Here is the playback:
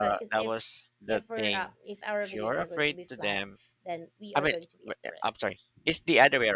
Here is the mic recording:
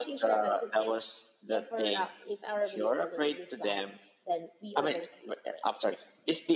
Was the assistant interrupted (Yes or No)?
No